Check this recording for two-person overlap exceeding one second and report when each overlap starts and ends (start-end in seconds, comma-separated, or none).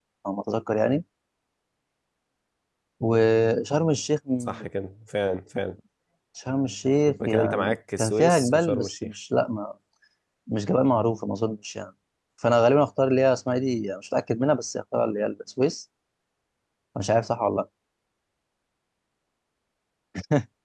7.3-9.1